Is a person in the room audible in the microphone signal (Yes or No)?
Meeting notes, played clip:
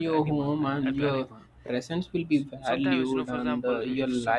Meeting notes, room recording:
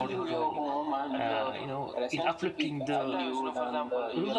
Yes